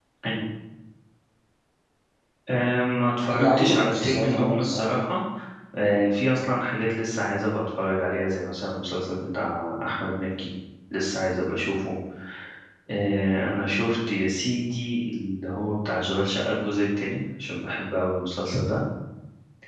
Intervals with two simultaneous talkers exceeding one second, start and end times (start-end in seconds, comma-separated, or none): 3.3-5.0